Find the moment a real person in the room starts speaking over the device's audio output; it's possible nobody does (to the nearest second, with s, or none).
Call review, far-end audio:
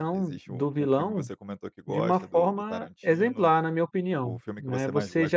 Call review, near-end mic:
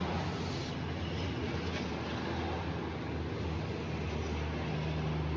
none